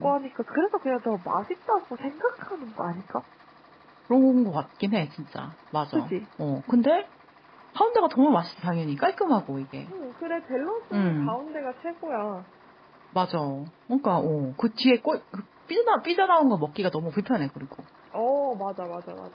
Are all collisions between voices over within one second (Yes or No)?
Yes